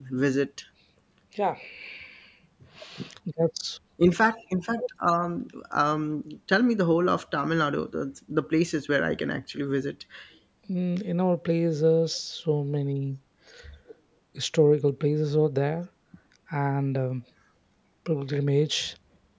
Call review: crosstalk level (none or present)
none